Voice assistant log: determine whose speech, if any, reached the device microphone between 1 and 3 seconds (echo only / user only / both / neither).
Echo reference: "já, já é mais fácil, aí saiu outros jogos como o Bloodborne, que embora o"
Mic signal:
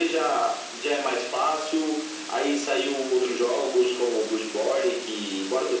echo only